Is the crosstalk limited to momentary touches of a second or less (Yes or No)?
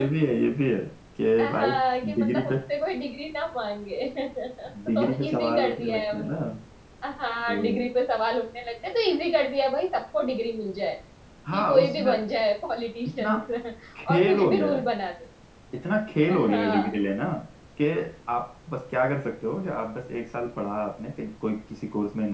No